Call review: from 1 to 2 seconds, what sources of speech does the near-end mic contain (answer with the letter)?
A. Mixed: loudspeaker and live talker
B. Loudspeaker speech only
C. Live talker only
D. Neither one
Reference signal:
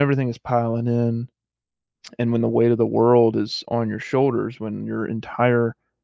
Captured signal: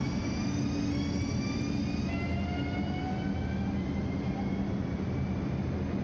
D